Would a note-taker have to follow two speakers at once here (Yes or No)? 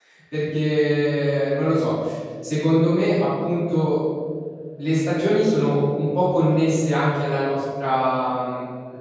No